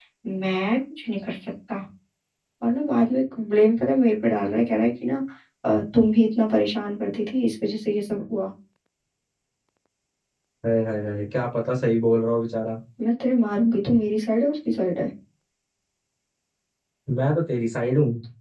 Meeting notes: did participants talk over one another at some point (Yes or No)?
No